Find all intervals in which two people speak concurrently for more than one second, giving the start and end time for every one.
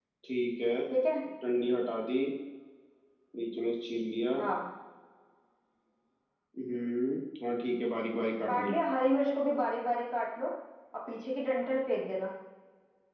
none

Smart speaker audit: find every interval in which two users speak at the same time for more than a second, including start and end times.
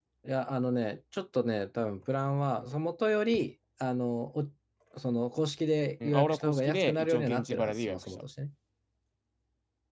6.0-8.2

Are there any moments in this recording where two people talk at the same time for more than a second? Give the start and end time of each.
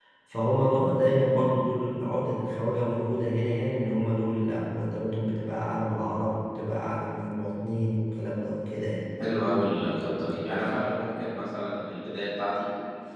none

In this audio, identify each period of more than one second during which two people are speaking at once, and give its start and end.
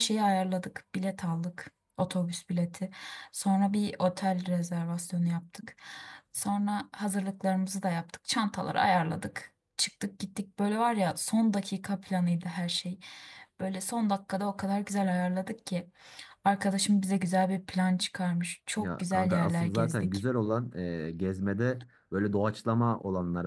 18.8-20.2

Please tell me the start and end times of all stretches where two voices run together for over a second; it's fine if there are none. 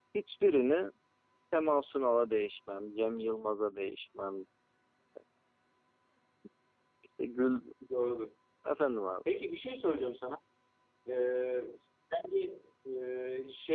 none

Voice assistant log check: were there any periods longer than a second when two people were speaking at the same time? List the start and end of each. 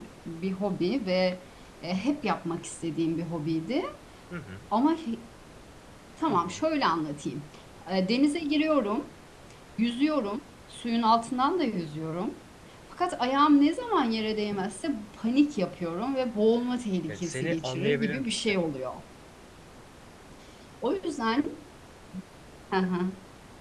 17.1-18.6

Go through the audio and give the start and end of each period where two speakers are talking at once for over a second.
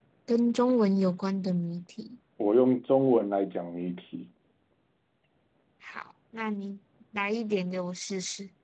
none

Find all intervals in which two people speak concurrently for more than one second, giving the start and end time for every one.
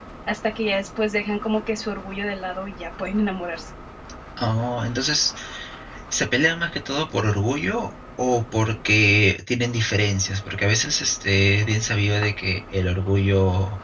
none

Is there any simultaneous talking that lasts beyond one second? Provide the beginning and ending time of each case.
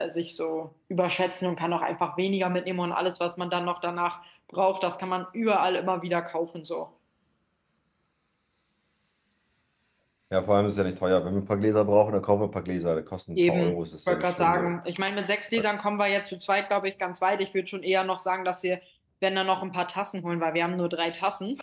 13.3-14.7

